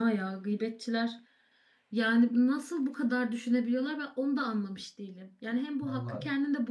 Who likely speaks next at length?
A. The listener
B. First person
B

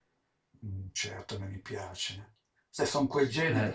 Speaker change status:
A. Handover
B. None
B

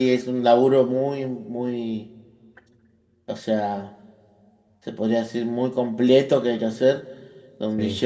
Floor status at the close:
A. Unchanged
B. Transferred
A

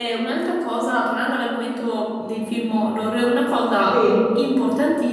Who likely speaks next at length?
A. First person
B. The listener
A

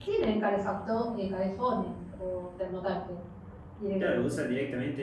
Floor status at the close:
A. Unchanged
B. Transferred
B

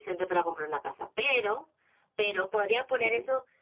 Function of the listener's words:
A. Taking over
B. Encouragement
B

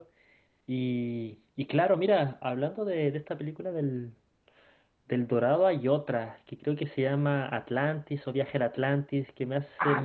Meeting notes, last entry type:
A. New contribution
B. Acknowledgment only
A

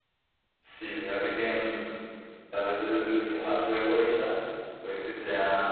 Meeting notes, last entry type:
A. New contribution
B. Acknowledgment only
B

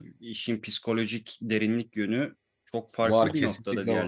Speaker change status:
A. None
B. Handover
B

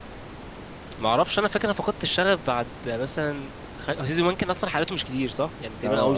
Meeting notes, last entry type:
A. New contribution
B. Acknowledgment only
A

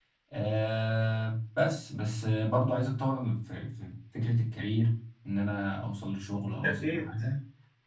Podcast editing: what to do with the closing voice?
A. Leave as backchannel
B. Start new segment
A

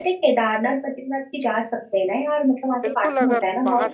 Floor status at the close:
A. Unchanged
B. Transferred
B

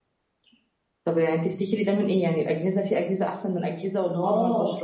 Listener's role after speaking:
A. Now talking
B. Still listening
A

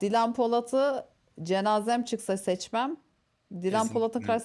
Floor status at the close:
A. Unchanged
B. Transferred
A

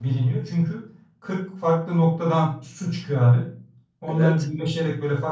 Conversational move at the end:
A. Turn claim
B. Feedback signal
B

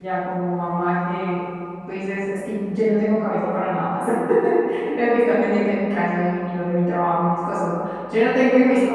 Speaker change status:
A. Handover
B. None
B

